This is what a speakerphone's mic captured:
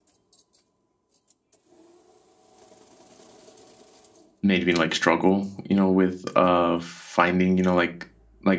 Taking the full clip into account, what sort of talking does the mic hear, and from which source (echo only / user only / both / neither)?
user only